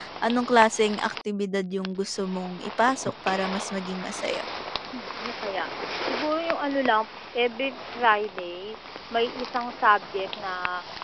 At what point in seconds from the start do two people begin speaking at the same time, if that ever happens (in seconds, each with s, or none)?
none